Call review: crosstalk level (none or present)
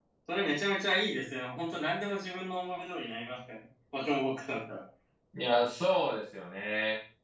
none